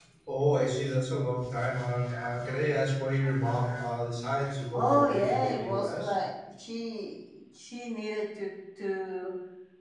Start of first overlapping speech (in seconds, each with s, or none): 4.7 s